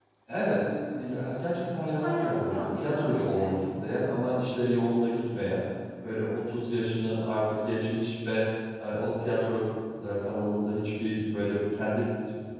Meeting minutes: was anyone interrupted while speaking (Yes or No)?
Yes